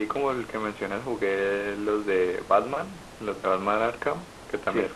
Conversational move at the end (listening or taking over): listening